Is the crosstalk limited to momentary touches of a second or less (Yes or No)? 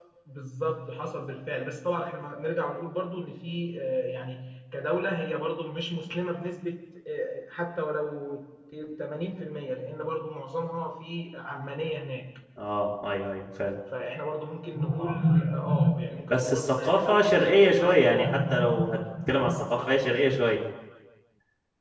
No